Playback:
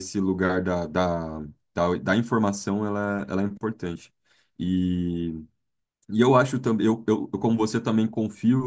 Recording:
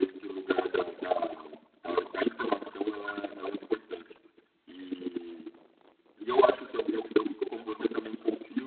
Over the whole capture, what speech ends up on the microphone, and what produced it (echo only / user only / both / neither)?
echo only